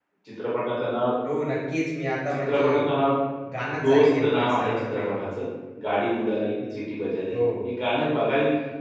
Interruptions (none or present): present